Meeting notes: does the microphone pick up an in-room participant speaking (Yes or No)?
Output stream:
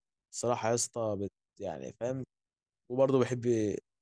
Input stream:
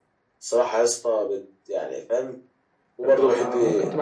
Yes